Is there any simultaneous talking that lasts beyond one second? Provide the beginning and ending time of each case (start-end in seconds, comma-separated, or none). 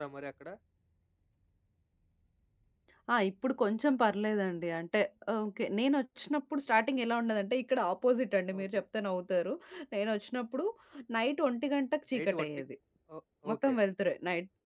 none